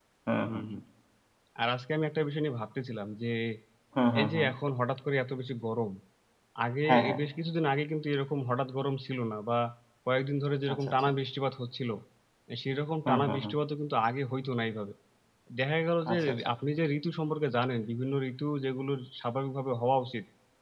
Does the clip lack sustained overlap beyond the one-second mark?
Yes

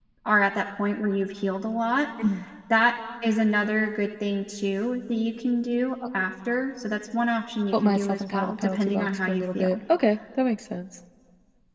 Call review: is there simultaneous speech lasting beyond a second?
Yes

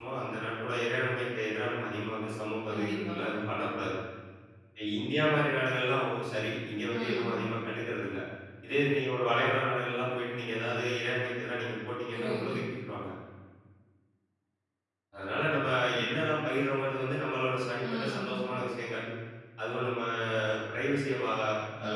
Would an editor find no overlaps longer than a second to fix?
Yes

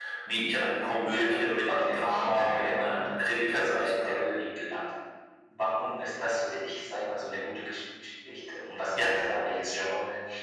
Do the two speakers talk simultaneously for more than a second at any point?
Yes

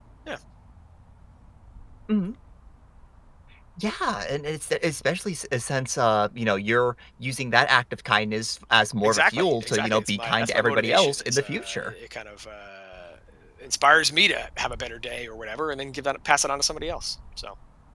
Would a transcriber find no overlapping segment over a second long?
No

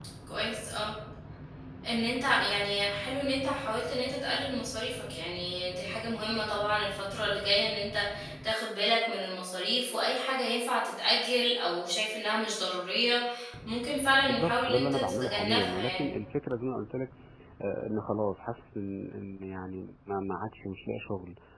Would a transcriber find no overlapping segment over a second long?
No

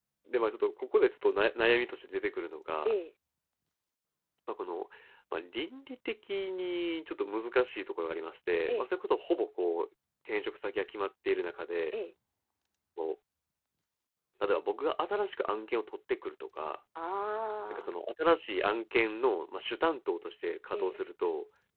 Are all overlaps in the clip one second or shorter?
Yes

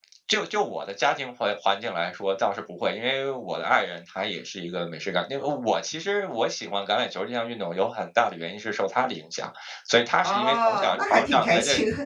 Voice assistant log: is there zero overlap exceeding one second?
No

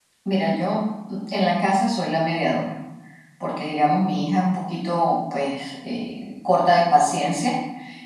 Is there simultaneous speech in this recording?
No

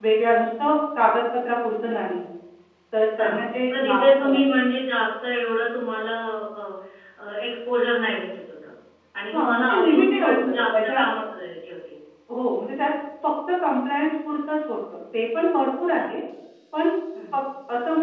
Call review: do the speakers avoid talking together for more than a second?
No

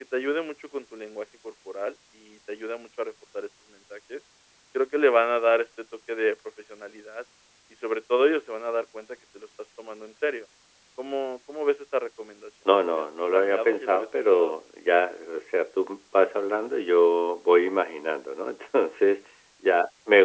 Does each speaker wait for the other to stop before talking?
No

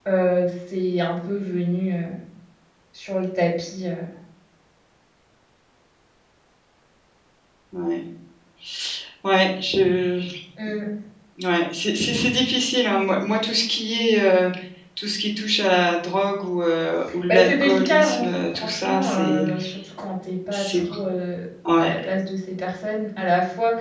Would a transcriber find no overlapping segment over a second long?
No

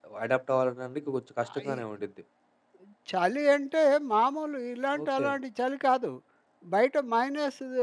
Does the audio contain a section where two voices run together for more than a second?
No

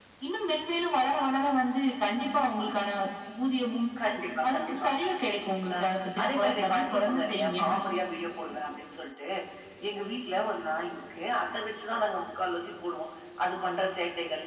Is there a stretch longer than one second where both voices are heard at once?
Yes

